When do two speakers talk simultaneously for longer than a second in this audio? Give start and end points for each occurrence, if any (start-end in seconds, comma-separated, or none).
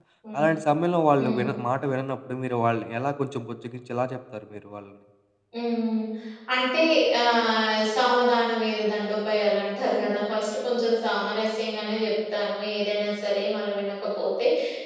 none